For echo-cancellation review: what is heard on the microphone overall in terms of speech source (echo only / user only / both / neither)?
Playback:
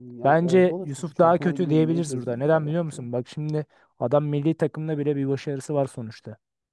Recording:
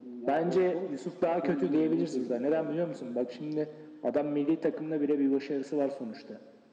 echo only